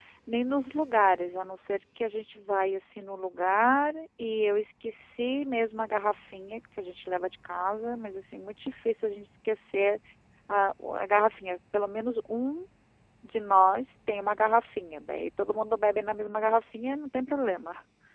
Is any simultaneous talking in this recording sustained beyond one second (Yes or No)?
No